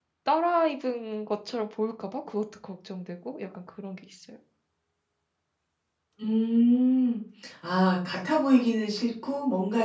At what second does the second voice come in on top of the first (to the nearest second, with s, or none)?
none